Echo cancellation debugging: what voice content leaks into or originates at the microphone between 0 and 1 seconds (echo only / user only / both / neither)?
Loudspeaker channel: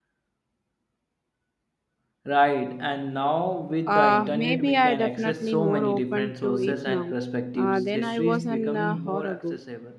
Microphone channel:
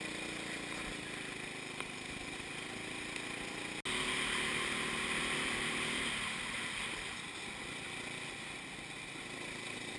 neither